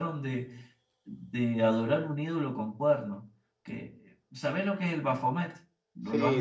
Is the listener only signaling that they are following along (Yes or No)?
No